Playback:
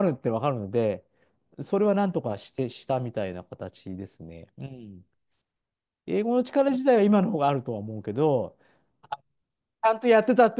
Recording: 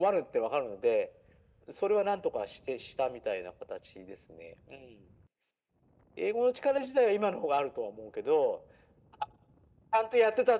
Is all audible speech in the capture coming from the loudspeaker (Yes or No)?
Yes